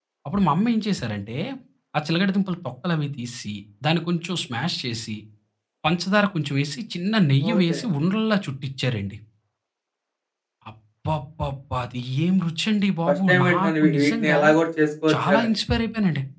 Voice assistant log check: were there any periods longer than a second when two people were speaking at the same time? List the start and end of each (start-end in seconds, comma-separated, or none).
13.1-14.4